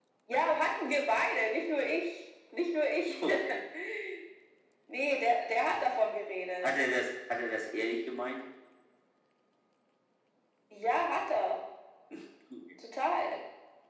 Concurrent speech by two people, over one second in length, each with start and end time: none

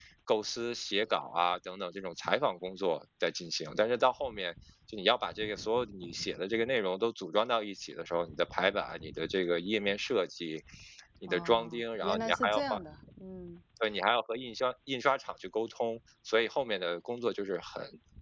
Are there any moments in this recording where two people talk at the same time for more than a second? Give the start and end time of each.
11.3-12.8

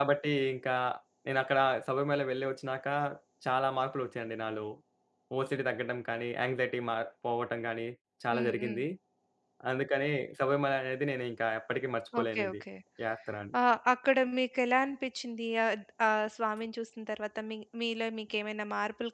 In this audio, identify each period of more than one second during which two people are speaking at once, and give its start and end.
none

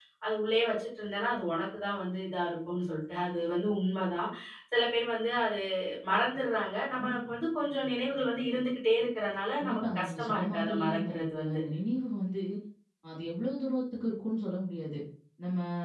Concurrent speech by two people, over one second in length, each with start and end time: 9.6-11.6

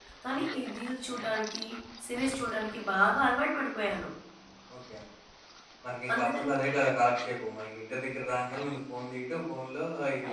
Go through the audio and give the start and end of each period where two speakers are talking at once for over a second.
none

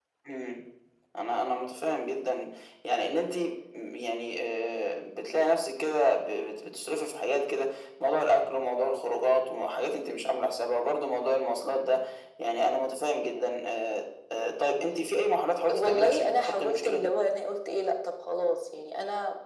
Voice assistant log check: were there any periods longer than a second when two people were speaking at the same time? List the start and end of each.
15.7-17.1

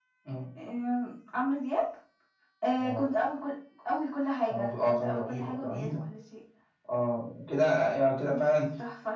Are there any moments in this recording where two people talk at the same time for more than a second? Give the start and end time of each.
4.5-6.0

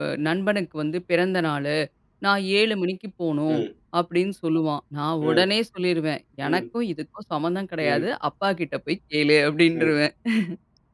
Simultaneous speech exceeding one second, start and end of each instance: none

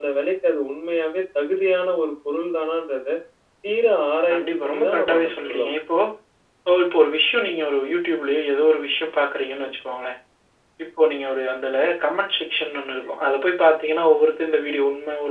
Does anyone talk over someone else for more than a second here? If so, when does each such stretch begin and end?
4.3-5.6

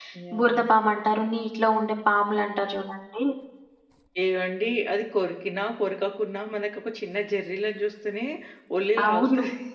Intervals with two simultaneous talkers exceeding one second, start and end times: none

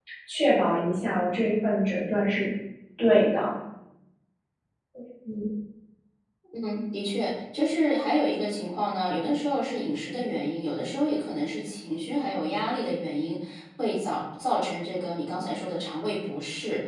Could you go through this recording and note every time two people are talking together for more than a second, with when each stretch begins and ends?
none

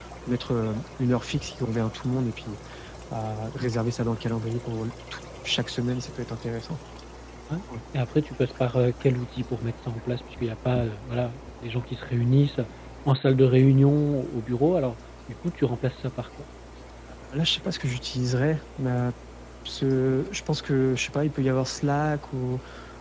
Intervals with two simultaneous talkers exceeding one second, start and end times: none

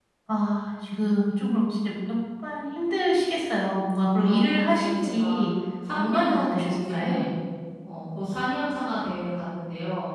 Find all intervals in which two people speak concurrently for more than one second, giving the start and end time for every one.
4.3-5.5, 6.0-7.3

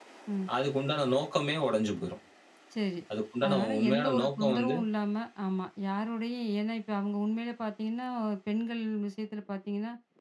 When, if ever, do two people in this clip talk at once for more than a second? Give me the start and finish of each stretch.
3.5-4.8

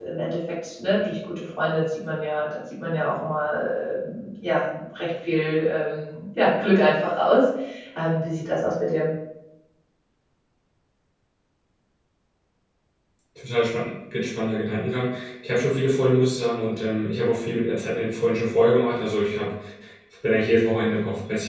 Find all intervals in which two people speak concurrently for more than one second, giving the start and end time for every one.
none

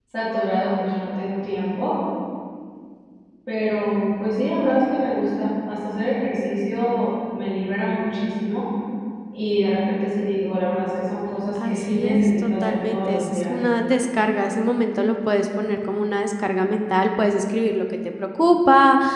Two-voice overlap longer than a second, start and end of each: 11.7-13.5

